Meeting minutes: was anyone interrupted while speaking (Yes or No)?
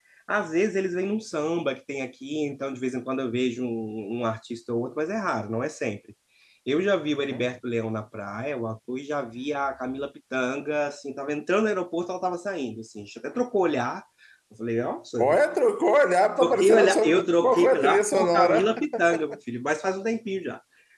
Yes